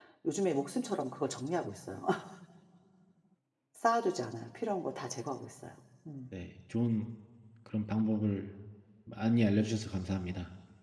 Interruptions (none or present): none